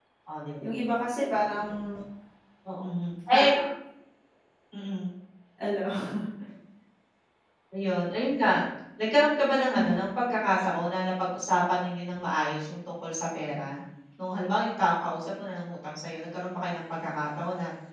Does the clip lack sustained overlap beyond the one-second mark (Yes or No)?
Yes